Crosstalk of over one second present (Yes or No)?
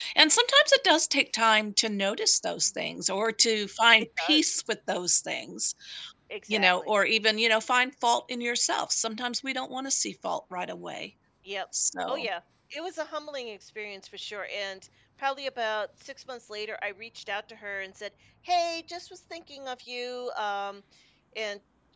No